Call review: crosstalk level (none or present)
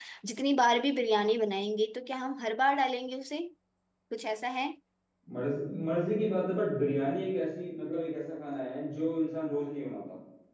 none